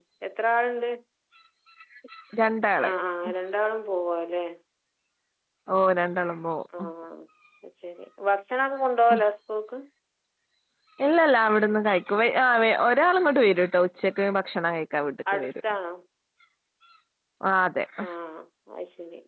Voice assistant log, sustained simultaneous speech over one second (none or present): none